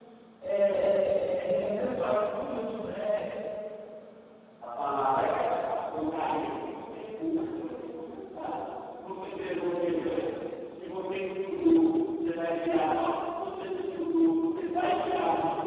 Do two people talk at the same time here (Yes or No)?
No